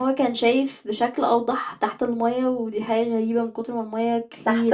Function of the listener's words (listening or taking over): listening